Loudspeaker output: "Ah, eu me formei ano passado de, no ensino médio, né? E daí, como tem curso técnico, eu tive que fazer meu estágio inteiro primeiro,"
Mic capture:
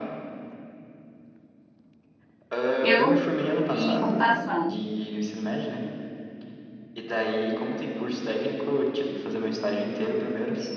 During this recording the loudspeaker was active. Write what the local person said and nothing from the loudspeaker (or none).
Eu em computação.